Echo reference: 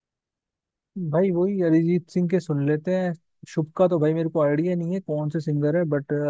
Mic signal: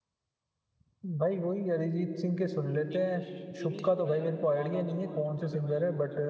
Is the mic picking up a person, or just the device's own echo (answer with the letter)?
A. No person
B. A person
B